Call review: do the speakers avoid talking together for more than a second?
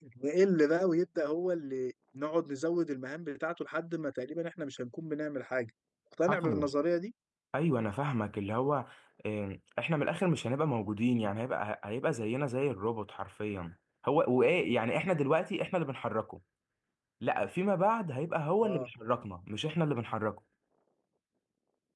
Yes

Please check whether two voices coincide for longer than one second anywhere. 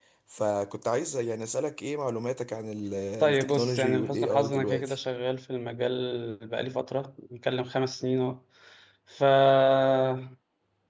Yes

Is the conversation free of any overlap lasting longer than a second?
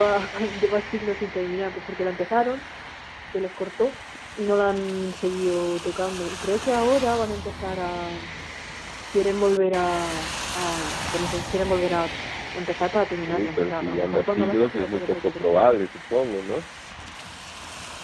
No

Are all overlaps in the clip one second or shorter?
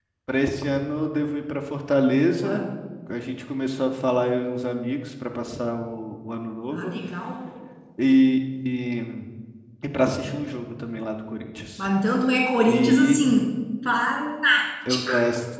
Yes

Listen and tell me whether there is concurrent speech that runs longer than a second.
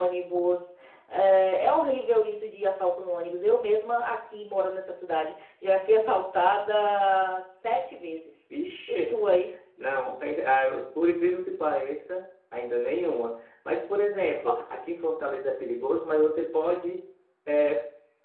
No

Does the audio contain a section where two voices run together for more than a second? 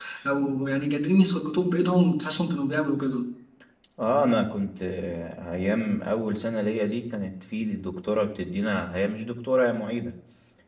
No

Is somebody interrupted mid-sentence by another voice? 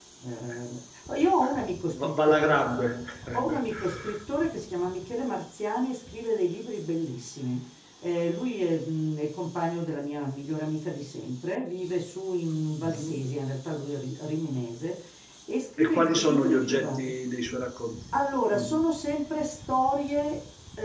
Yes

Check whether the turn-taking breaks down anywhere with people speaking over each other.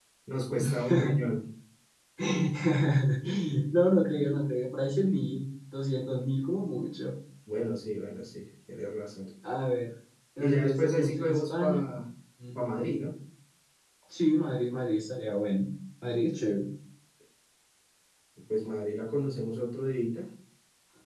Yes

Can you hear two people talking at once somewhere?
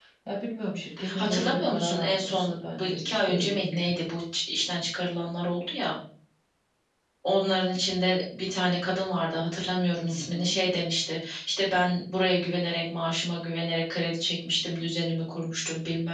Yes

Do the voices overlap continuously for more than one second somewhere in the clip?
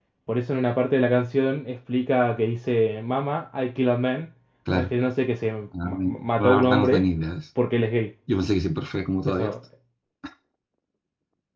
Yes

